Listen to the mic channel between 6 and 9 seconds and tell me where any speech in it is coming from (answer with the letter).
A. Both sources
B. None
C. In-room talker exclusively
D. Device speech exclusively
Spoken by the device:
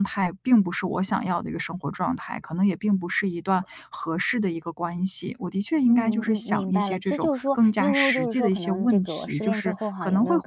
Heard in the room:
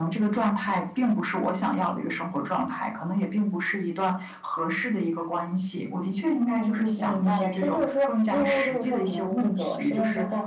D